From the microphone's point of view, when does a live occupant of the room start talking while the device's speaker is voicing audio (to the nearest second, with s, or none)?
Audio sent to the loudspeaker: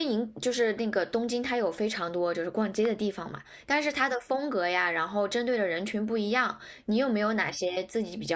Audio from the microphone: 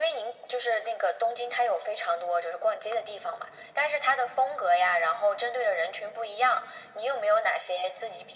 none